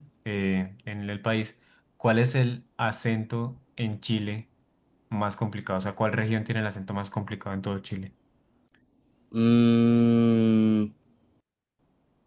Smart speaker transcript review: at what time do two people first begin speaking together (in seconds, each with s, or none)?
none